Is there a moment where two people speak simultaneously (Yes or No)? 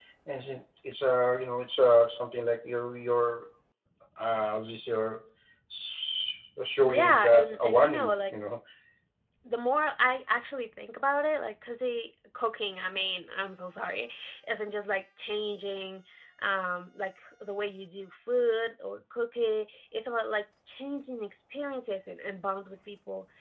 Yes